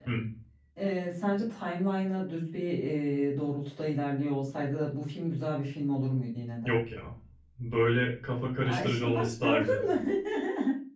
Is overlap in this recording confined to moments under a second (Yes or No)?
No